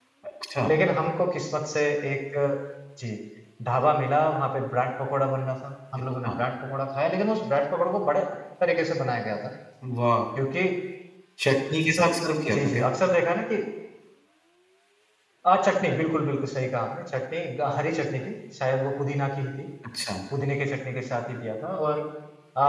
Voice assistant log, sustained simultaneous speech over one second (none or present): none